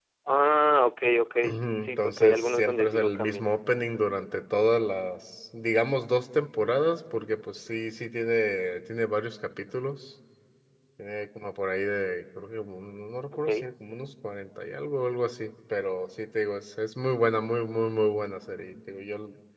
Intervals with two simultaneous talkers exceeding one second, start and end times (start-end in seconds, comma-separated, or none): 1.8-3.5